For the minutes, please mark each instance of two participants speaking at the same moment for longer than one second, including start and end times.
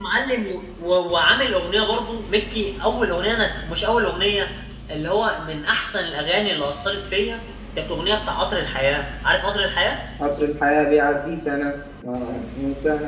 none

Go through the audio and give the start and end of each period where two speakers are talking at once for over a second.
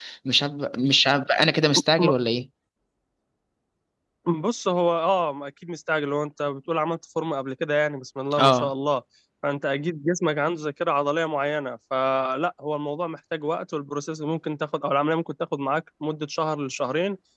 none

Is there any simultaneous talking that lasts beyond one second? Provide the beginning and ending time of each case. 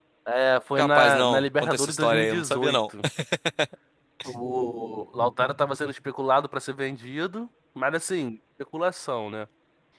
0.8-2.8

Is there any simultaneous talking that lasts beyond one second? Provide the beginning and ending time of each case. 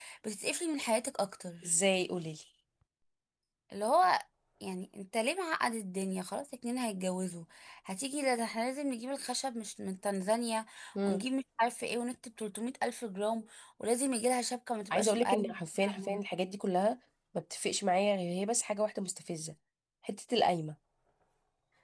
14.9-16.2

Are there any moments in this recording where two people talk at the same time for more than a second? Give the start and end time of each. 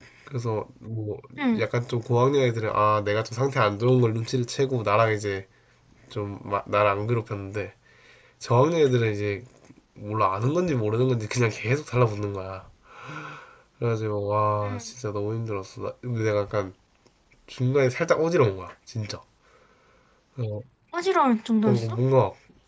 none

